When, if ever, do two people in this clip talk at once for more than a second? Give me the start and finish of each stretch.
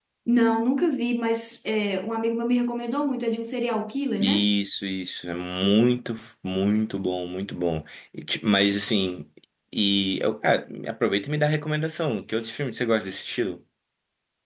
none

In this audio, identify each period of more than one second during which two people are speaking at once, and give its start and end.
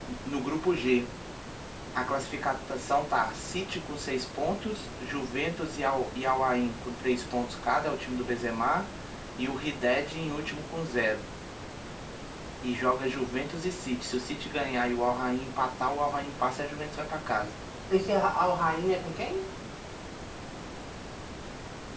none

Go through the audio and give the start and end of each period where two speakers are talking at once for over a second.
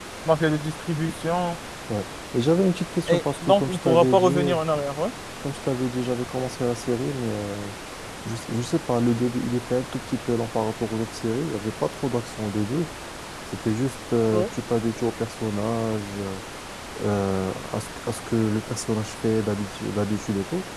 3.1-4.6

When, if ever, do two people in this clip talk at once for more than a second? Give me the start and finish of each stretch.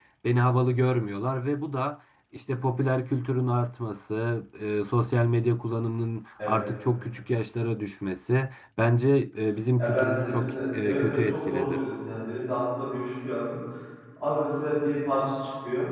9.8-11.8

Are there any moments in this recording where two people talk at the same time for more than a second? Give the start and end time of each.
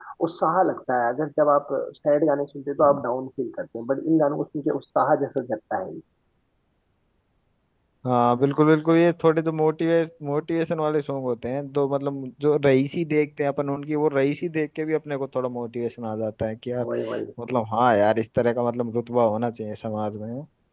none

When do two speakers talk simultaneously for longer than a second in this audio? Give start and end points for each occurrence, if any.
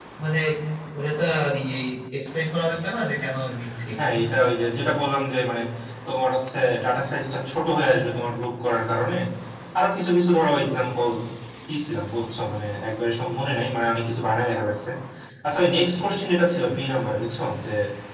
none

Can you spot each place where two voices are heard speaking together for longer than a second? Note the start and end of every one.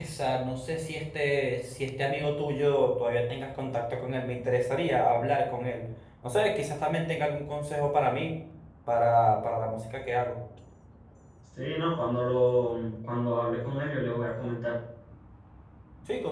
none

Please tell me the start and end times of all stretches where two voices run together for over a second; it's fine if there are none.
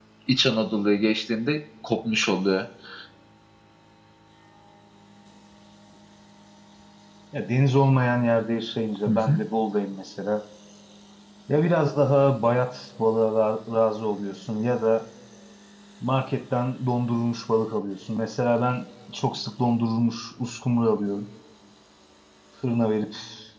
none

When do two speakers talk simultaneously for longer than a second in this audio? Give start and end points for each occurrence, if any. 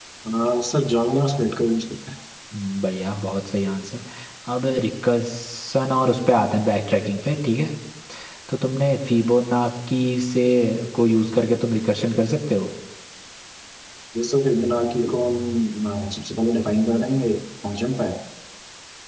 none

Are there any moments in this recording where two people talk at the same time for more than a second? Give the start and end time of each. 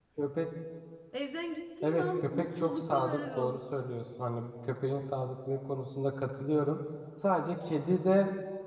1.8-3.6

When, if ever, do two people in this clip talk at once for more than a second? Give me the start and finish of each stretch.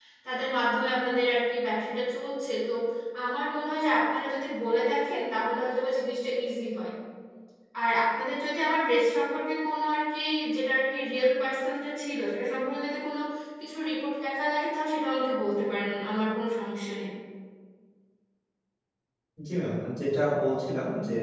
none

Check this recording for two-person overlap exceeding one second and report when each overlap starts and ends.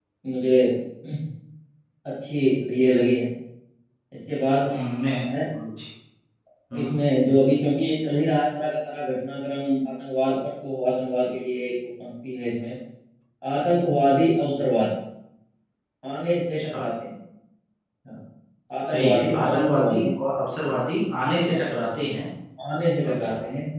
18.8-20.1

